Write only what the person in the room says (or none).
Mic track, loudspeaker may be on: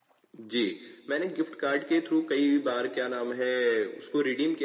none